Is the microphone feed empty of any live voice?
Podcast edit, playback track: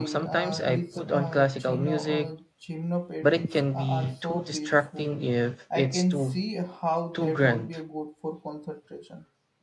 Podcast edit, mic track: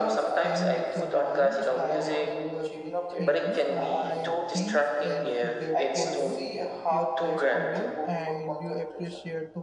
No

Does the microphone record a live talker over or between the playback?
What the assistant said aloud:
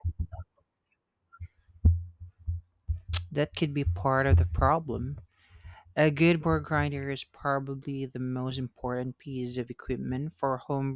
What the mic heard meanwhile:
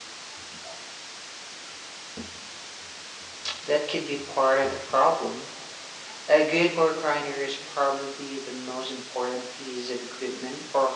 No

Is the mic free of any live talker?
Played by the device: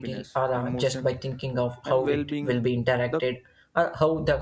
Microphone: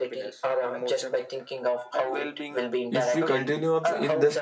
No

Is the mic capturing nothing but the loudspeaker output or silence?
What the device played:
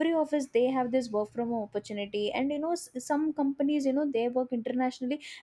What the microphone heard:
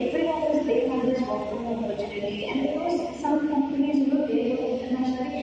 Yes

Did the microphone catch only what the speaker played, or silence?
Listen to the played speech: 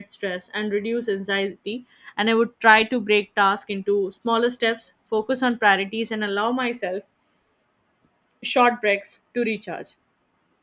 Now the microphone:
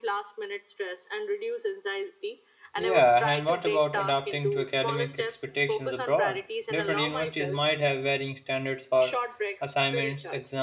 No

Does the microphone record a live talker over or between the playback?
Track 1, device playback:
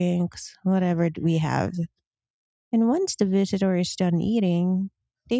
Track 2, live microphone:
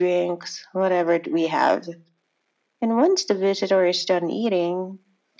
No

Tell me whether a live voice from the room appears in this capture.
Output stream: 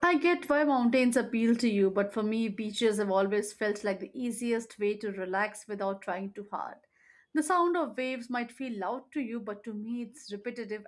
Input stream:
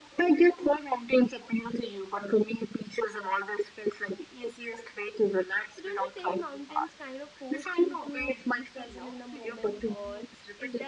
Yes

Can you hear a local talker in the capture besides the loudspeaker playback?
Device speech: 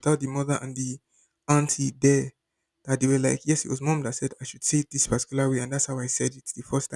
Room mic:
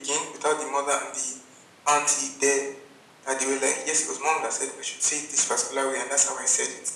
No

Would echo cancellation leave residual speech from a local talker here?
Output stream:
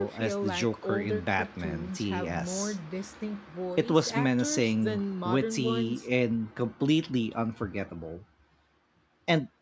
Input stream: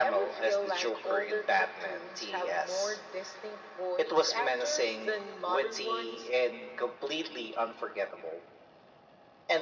No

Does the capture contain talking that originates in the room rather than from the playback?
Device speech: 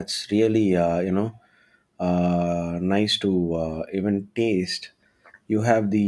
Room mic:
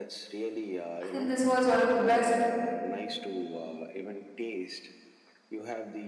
Yes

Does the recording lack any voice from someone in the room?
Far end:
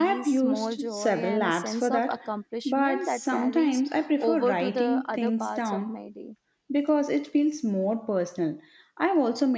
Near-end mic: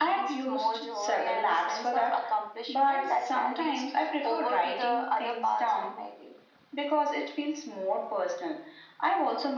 Yes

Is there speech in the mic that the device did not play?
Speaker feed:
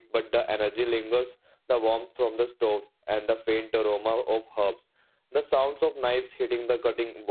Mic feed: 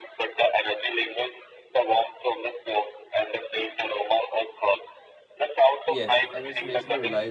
Yes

